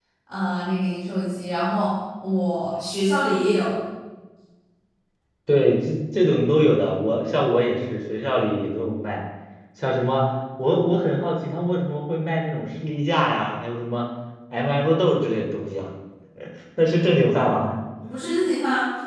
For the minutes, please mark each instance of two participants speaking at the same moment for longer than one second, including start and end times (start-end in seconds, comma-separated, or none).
none